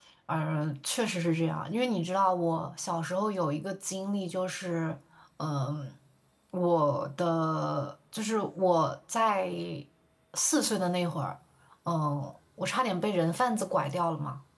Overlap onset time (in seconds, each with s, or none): none